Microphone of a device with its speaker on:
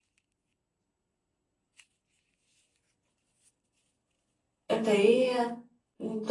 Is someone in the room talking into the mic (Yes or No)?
Yes